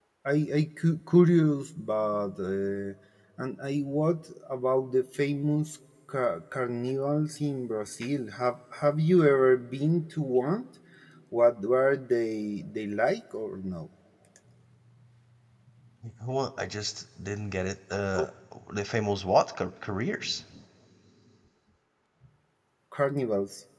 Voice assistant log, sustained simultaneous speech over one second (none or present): none